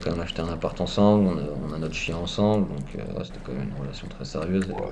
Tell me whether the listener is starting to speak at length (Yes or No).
Yes